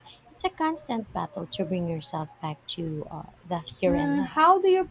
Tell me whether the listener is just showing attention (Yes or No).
No